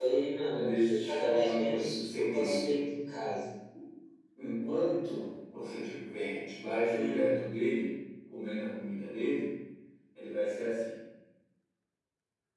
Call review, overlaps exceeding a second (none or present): present